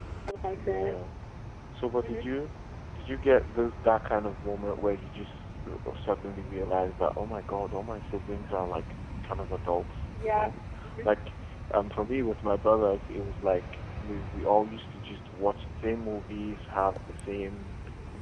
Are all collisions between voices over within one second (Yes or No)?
Yes